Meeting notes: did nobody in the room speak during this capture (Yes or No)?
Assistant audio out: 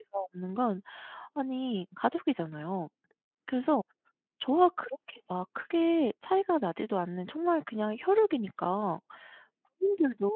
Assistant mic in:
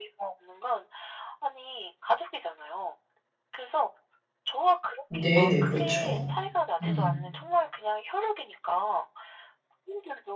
No